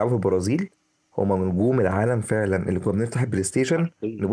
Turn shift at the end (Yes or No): No